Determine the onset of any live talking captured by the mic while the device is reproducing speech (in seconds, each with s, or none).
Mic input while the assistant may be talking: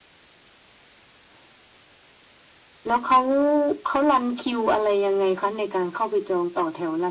none